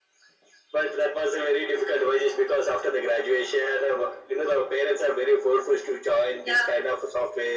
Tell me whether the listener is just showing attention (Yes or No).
Yes